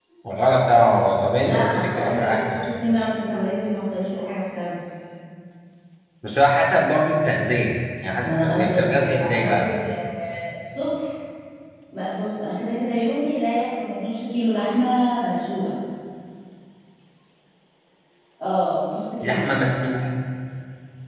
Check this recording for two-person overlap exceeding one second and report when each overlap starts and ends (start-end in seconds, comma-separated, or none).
1.4-2.7, 8.2-9.7